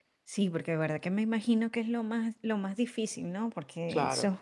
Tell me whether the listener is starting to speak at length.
No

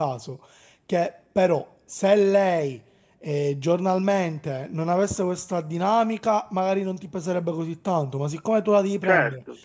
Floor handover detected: No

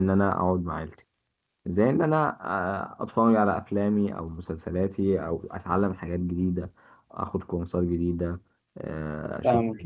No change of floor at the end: No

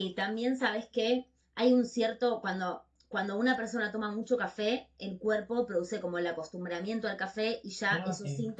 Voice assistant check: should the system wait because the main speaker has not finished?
Yes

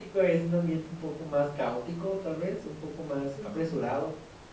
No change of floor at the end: Yes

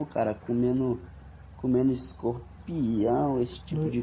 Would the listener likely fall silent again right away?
Yes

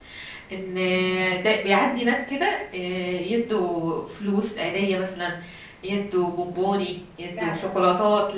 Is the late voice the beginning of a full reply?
No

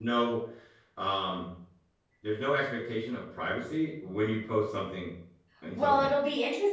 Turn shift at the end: Yes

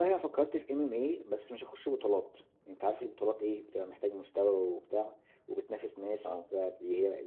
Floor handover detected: No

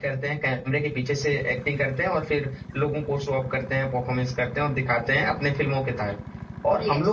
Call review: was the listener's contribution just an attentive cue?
Yes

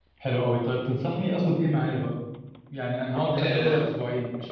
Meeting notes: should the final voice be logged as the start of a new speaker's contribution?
No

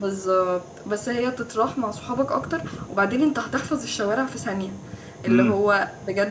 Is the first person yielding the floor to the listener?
No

